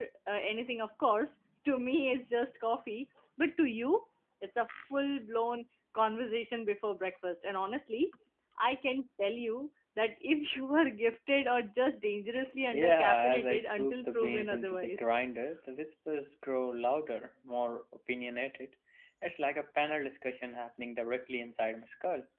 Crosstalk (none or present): present